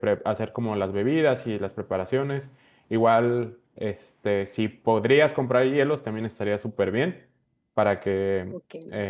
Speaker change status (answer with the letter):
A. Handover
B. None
A